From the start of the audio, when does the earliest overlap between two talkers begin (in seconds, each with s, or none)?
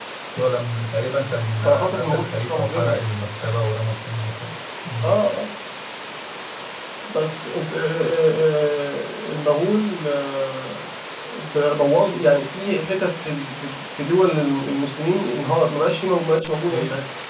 1.6 s